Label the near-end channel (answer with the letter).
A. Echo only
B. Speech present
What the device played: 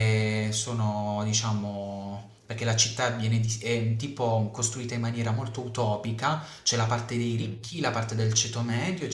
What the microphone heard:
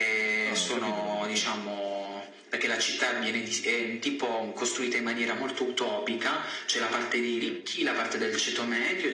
B